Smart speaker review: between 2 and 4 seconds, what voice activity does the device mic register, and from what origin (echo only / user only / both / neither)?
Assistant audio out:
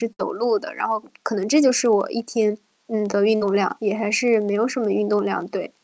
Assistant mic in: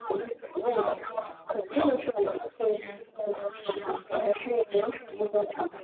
both